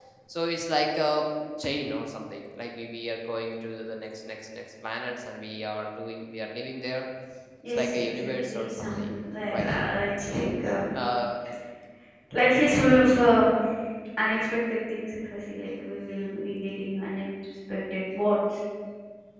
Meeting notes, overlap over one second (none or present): present